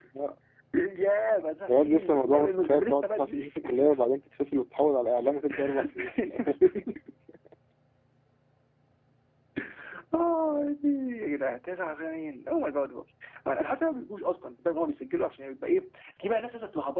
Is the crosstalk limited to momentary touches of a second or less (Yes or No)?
No